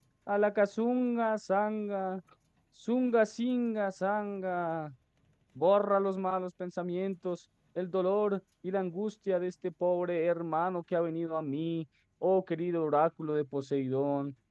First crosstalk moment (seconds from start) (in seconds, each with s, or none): none